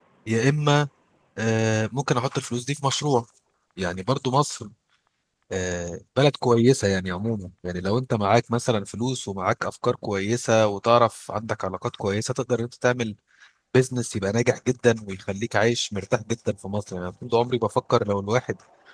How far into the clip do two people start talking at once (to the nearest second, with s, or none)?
none